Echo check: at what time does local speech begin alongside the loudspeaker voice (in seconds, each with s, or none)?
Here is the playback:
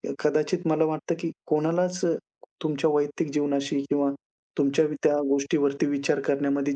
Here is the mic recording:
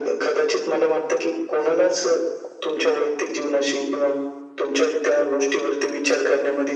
none